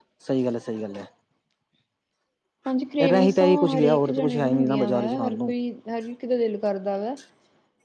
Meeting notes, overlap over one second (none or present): present